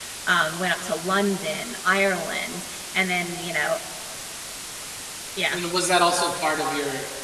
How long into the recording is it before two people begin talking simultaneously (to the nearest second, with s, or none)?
none